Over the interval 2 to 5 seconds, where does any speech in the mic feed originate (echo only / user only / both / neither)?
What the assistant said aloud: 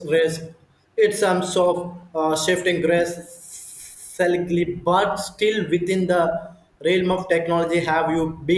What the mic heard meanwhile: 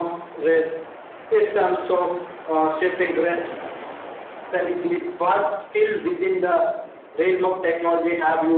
echo only